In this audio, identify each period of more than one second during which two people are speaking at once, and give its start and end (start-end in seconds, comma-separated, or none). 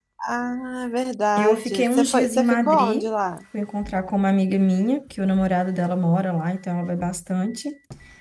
1.4-3.1